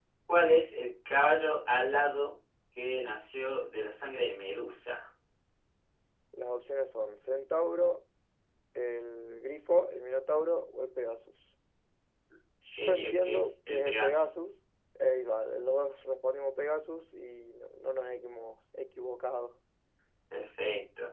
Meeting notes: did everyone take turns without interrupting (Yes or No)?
No